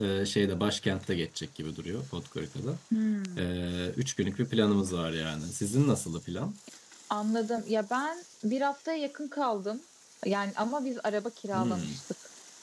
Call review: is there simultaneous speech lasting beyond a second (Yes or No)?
No